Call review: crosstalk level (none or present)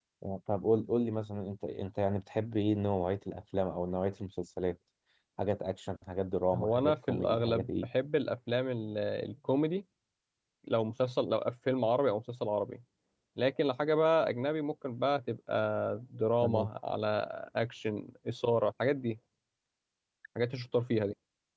present